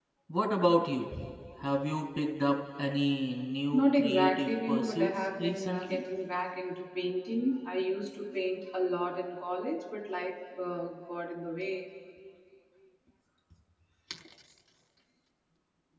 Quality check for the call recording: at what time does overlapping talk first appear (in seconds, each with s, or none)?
3.7 s